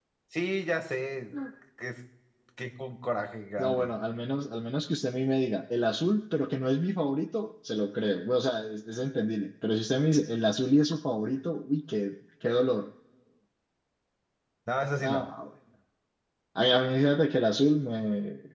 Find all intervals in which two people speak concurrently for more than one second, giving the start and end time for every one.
none

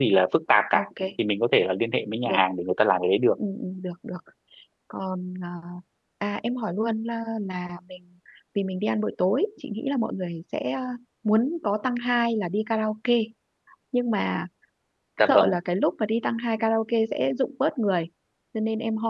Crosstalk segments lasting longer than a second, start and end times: none

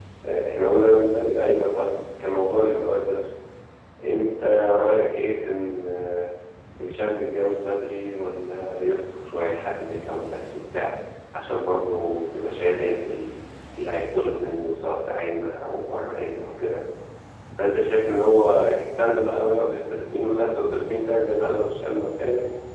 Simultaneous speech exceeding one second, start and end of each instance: none

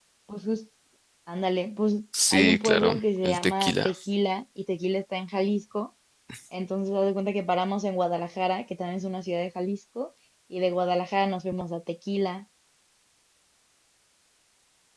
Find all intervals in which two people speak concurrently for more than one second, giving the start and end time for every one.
2.3-3.9

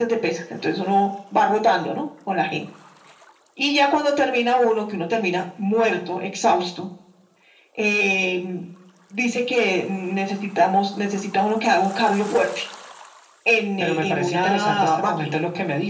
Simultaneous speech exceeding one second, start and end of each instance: 13.8-15.4

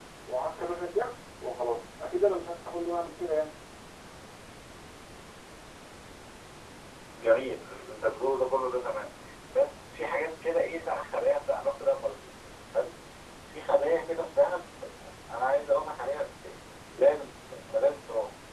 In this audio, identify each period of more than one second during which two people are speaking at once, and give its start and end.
none

